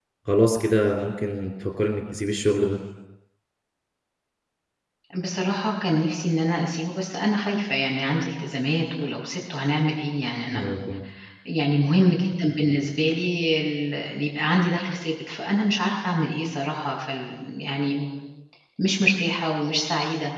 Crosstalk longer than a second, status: none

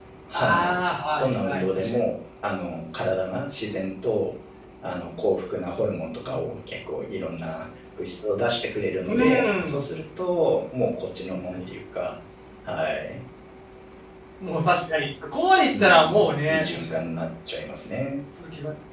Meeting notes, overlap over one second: present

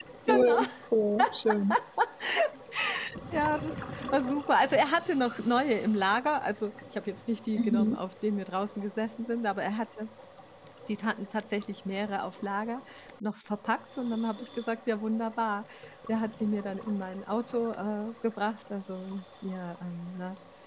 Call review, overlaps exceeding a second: none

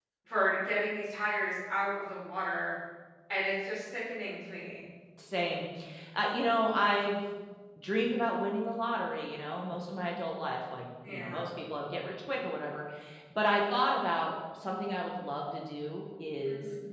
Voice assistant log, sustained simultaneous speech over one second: none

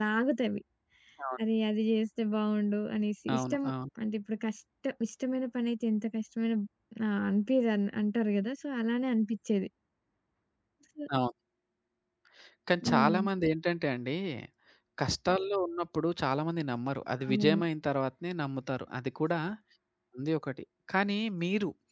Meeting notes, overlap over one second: none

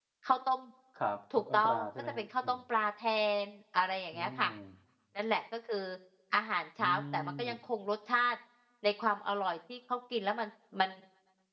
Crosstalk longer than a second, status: present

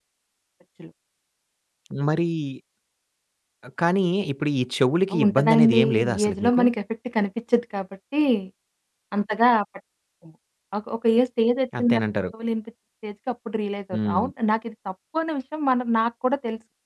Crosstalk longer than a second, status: present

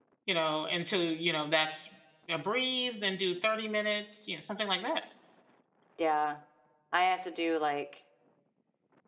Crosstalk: none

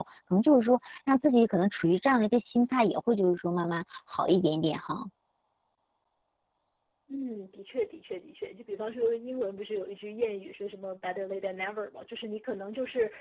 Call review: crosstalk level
none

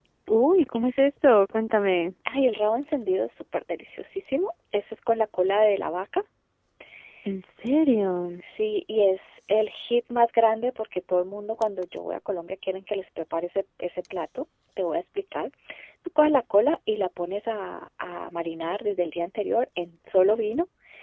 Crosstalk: none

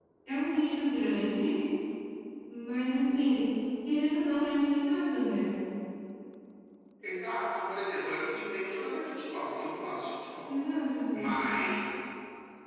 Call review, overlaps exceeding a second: none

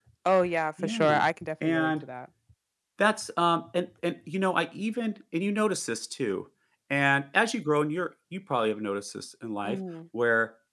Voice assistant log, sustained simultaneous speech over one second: none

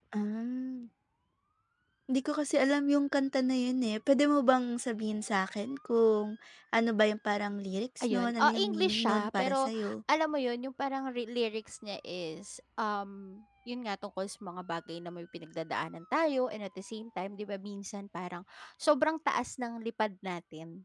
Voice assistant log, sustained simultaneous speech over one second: present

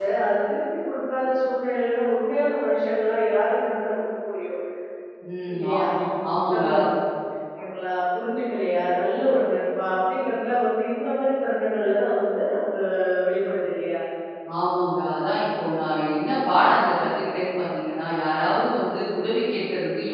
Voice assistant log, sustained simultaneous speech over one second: none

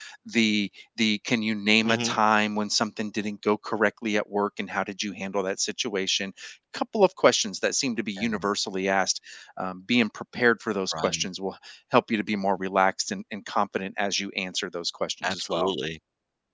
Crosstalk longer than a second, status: none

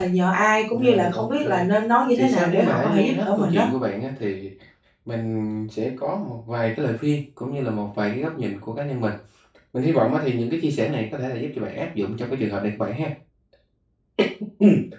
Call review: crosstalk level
present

